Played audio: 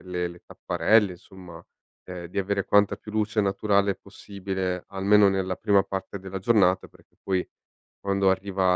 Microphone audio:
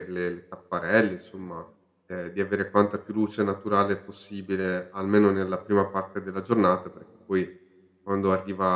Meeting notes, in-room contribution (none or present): none